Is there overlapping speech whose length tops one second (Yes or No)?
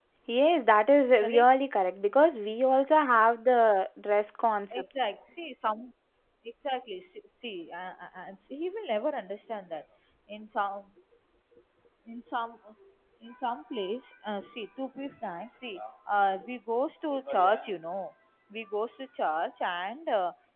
No